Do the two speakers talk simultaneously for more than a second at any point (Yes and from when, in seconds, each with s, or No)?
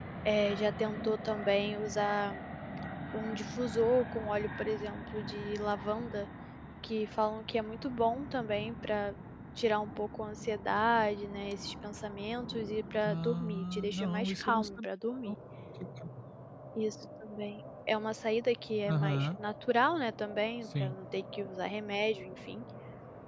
Yes, from 13.0 s